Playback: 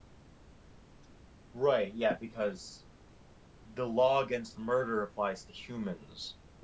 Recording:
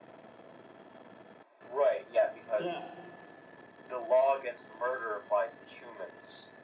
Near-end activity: present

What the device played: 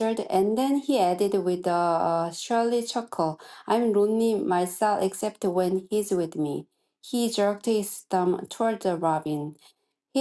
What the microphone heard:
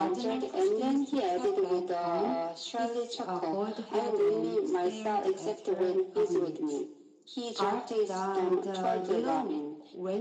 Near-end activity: present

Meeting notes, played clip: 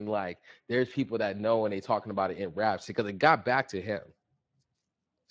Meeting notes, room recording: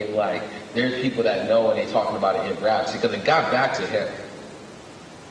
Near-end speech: none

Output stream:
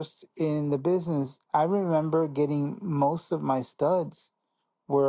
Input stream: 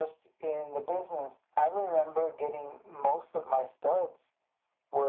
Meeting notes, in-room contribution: none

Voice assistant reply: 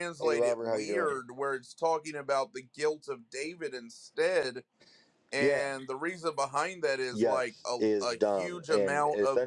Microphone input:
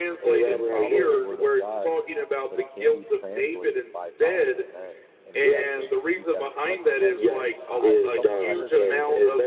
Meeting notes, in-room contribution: present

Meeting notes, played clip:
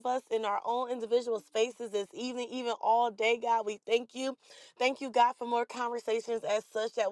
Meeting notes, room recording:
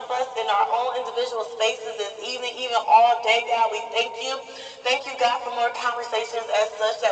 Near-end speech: none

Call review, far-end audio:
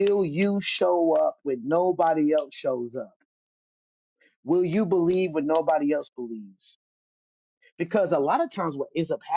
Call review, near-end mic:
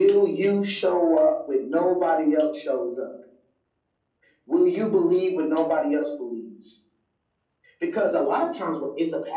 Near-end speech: none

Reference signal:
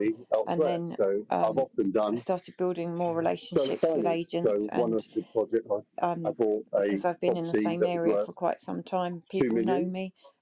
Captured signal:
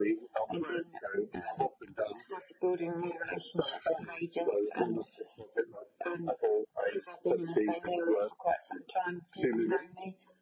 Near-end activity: none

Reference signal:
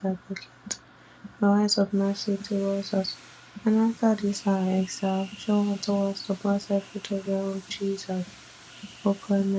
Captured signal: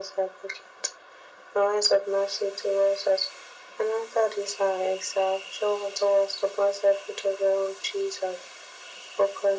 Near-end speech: none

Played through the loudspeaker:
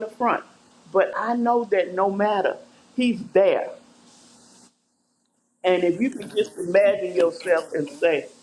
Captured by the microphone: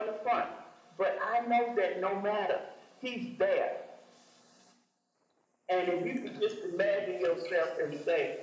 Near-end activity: none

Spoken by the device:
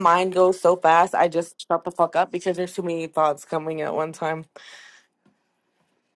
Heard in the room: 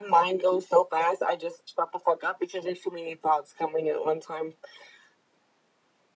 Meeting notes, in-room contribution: none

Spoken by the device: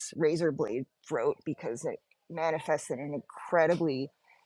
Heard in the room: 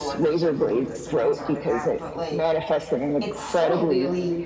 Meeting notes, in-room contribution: present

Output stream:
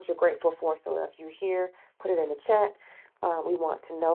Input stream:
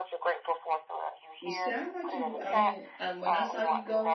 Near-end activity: present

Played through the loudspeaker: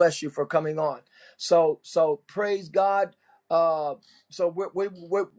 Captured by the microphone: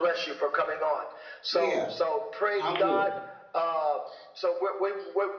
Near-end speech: present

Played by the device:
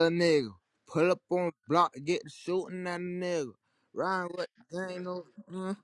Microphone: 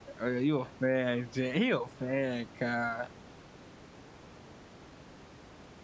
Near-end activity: present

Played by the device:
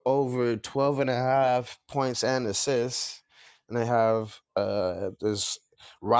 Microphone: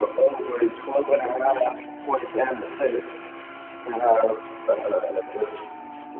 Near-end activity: none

